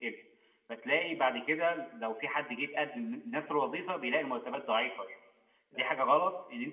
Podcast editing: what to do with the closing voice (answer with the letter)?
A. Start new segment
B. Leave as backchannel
B